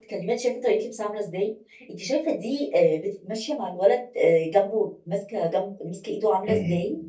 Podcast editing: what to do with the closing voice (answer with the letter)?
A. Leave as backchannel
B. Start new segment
B